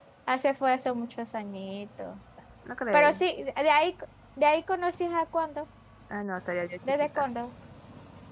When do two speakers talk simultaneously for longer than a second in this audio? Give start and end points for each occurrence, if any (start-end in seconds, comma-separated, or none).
none